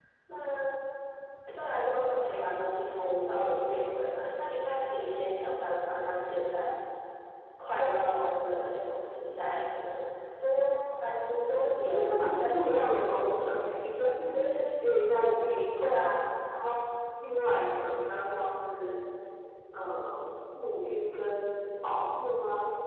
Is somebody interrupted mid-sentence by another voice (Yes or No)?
Yes